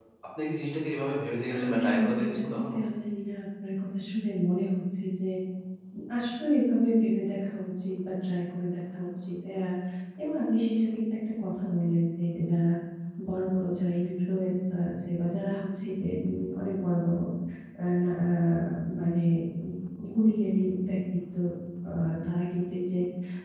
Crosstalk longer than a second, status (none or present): present